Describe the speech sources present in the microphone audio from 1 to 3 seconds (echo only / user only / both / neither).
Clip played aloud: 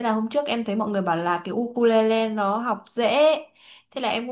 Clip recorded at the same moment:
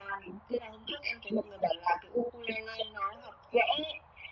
echo only